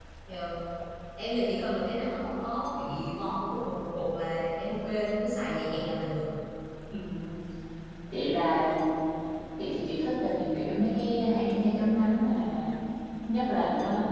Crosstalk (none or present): none